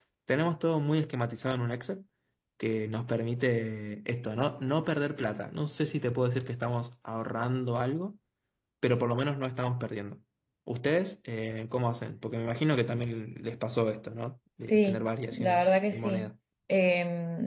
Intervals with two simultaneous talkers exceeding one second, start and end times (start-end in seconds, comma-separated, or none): 14.7-16.3